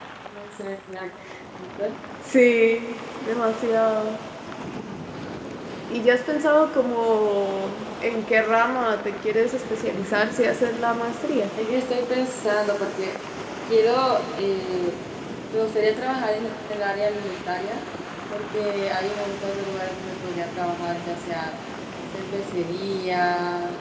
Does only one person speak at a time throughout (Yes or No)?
Yes